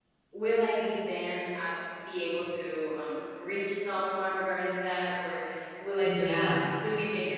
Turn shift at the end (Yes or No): No